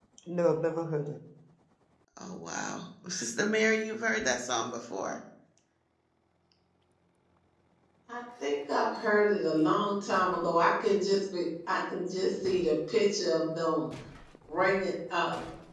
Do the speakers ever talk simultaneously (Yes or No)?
No